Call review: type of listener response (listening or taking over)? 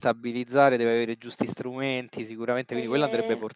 taking over